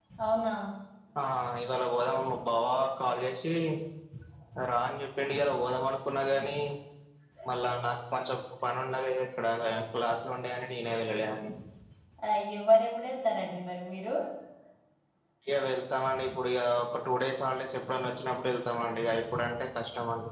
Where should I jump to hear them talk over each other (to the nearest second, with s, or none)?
none